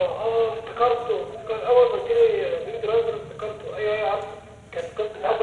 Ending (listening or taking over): listening